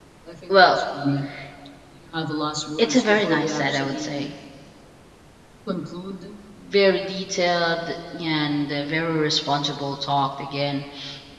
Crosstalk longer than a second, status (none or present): present